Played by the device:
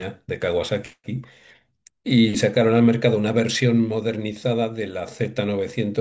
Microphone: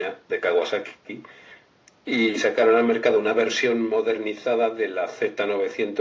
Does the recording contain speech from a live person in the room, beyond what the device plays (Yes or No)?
No